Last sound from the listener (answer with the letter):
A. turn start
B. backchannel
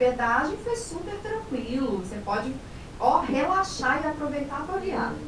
A